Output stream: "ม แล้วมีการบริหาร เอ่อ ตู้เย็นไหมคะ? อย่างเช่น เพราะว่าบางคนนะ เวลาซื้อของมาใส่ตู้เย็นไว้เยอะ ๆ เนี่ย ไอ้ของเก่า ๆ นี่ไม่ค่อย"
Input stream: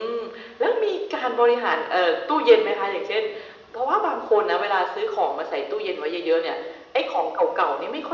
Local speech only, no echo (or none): none